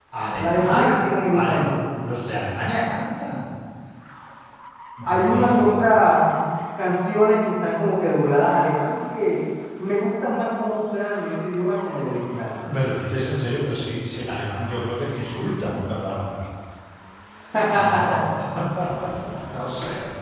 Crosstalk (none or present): present